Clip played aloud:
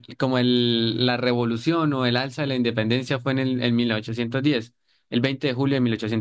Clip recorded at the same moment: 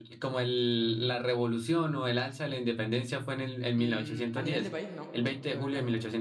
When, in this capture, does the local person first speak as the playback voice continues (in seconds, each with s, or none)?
3.7 s